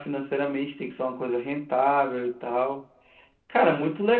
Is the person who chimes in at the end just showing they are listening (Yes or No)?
Yes